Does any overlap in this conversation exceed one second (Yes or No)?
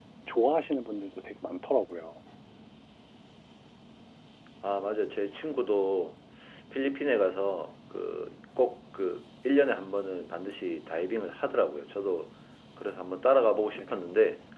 No